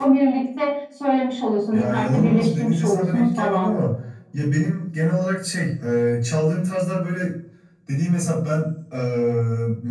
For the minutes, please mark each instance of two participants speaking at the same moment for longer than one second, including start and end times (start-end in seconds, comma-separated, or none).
1.7-3.8